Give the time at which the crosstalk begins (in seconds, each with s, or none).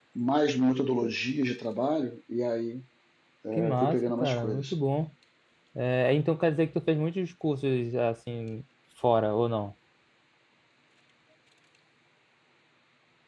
3.5 s